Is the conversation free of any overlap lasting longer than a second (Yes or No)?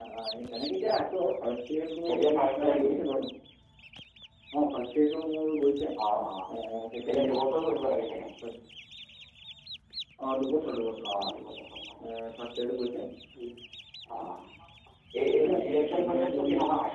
No